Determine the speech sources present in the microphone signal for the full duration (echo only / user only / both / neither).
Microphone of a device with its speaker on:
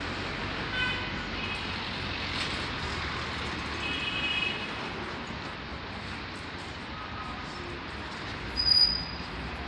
neither